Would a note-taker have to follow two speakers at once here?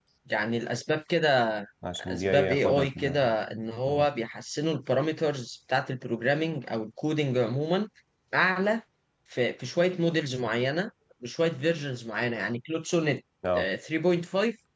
Yes, from 2.0 s

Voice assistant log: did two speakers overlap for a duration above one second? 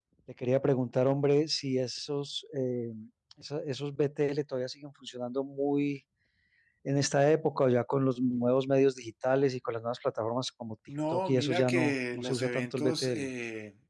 Yes, from 11.1 s

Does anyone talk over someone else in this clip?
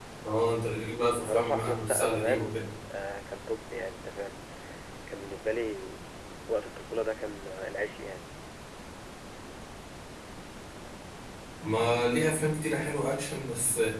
Yes, from 1.2 s

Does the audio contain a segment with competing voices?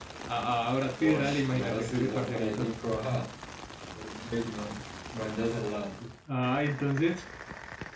Yes, from 1.0 s

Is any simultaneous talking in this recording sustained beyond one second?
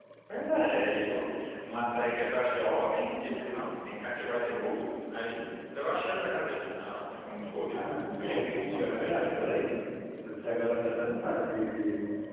Yes, from 7.7 s

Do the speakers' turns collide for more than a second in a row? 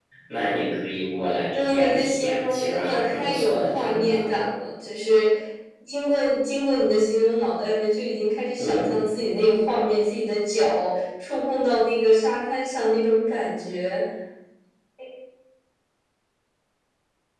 Yes, from 1.5 s

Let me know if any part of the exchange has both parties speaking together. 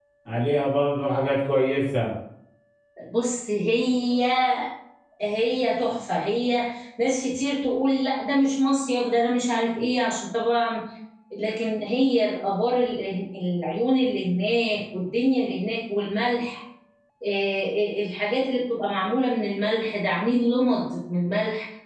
No

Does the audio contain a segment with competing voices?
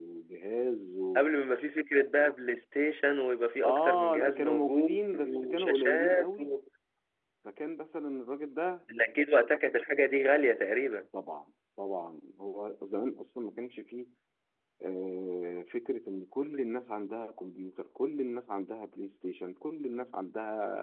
Yes, from 3.6 s

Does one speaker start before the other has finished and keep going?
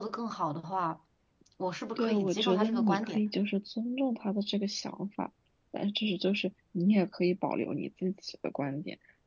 Yes, from 2.0 s

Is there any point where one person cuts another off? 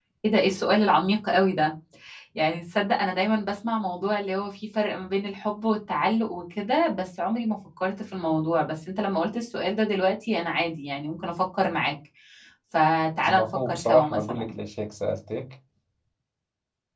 Yes, from 13.2 s

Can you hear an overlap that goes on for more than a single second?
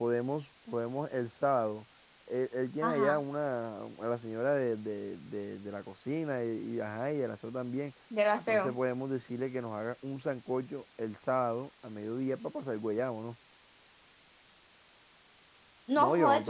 No

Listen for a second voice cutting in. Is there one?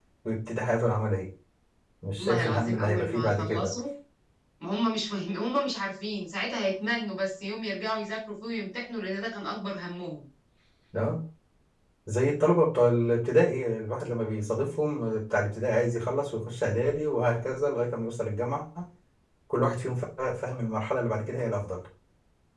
Yes, from 2.2 s

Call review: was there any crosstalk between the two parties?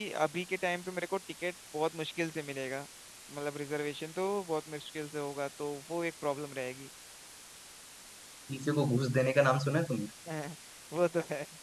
No

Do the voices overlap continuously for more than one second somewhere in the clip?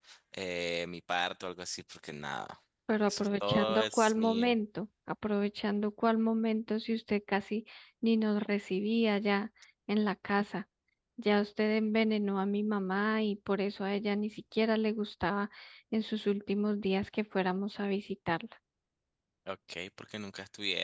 Yes, from 3.1 s

